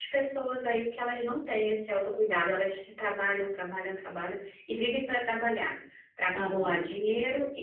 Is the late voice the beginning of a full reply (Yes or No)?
No